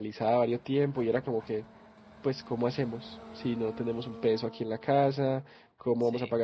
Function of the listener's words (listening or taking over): listening